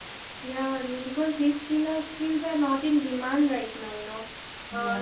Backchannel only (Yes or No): Yes